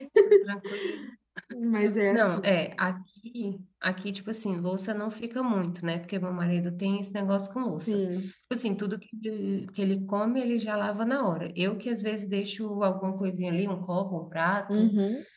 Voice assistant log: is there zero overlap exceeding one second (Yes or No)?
Yes